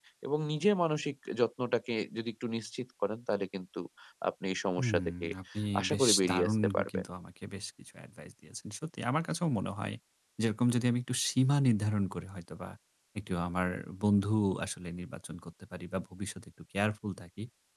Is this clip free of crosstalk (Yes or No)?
No